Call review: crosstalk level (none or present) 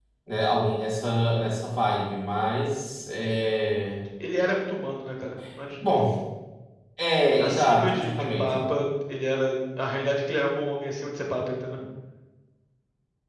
present